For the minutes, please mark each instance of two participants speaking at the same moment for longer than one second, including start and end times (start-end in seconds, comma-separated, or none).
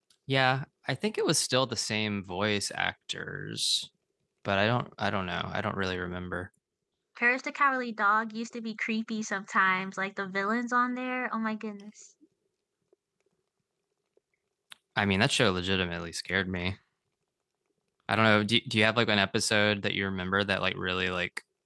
none